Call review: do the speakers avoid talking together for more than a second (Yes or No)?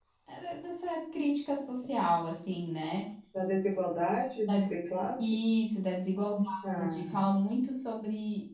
Yes